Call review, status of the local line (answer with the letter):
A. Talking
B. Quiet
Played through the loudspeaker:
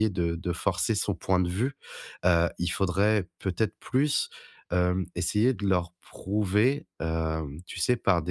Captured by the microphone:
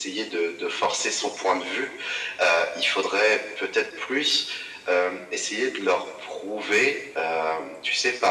B